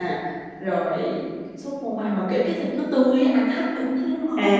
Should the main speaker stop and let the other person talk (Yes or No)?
Yes